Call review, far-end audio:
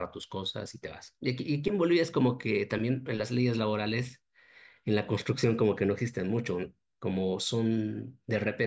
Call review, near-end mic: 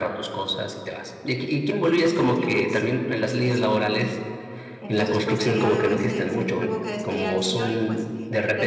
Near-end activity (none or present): present